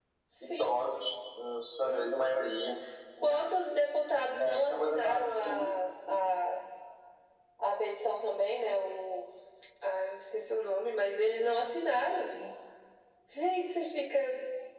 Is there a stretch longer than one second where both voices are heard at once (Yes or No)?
Yes